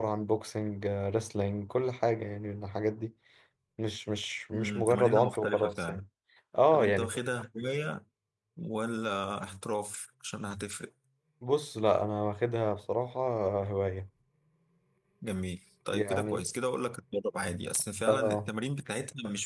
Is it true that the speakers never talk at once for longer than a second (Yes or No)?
No